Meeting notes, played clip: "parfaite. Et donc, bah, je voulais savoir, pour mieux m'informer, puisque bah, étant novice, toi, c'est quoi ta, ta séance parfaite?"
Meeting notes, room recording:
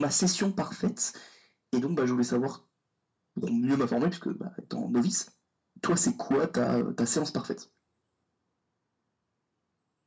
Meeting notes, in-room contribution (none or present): none